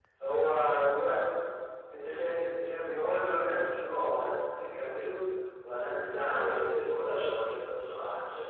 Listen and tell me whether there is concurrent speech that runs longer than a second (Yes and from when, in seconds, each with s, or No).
Yes, from 6.0 s